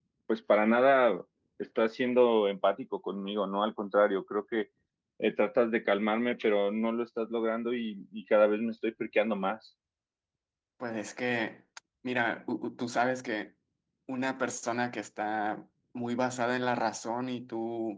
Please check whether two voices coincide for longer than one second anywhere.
No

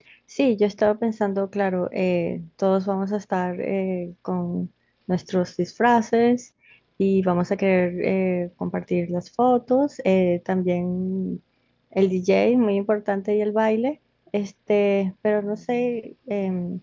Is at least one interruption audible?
No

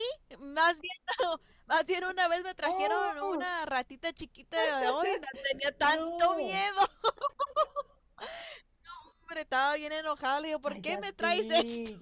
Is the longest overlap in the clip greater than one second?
Yes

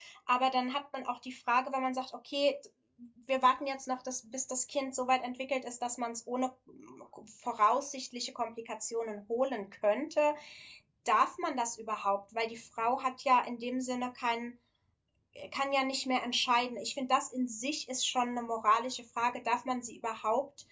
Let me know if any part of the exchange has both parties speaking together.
No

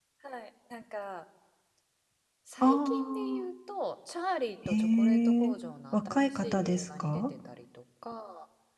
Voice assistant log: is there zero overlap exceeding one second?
No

